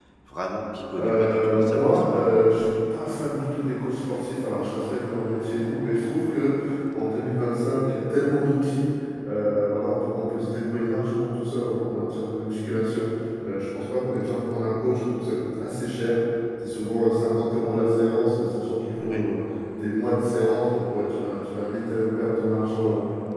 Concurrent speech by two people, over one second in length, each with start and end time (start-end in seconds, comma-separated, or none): 0.9-2.2